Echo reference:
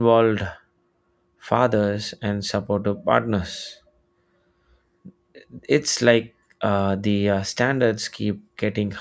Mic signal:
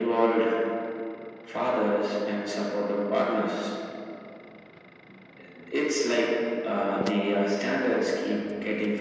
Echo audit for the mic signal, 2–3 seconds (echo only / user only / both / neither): echo only